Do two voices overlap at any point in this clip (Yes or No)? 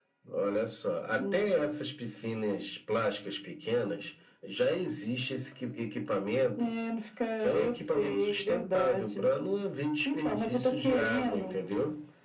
Yes